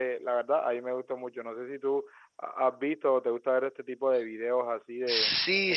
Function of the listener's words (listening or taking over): taking over